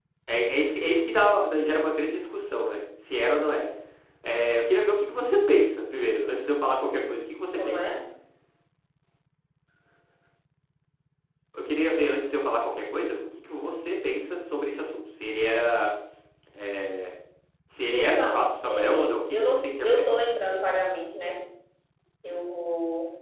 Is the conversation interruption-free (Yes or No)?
No